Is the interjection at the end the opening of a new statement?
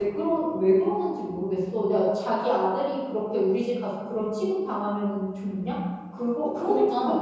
No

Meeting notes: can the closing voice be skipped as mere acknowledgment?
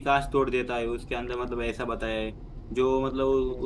Yes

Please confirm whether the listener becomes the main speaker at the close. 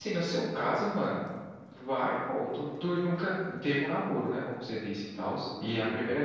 No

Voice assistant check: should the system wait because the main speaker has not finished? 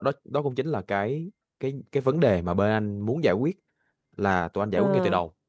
Yes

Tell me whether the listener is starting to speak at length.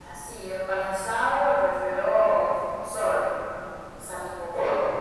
No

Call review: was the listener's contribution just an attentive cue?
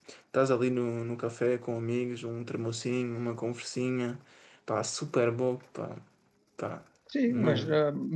No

